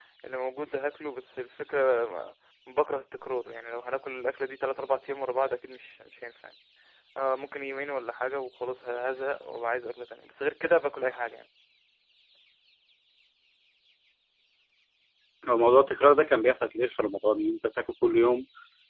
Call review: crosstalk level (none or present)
none